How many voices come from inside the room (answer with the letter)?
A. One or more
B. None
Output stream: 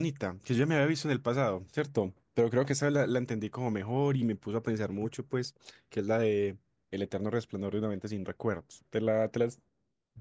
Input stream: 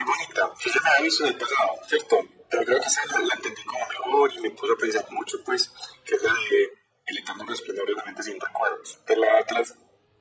B